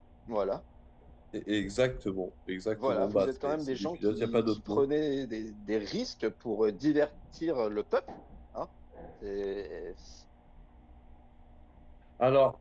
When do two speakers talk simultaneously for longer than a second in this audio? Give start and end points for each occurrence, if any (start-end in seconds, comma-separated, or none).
2.9-4.8